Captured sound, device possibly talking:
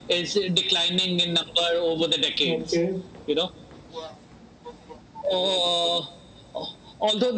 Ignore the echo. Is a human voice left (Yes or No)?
Yes